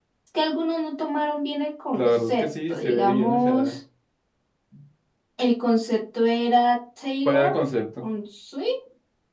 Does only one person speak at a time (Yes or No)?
No